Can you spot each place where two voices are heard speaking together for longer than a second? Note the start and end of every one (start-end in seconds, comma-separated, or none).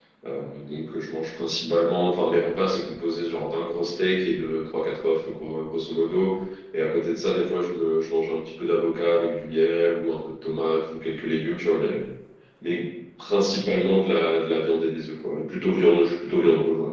none